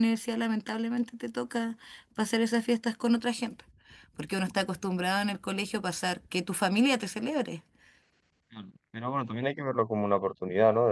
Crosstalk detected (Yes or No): No